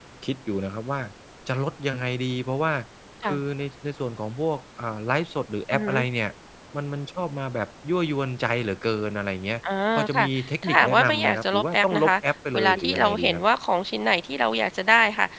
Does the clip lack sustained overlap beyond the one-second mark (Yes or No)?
No